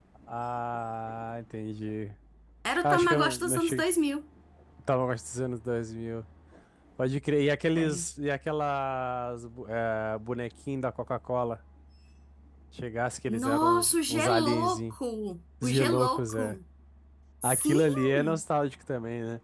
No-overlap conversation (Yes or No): No